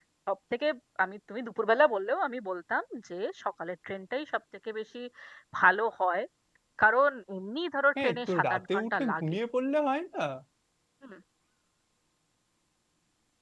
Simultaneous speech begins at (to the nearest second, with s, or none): 8 s